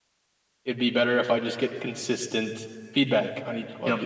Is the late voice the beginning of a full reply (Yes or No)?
Yes